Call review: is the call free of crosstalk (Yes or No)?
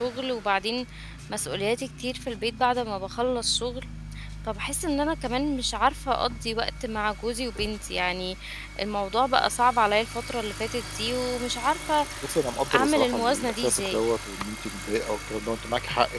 No